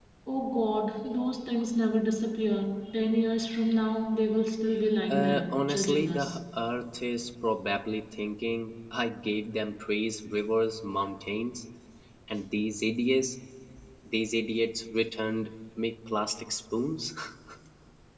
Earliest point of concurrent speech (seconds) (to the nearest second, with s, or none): 5 s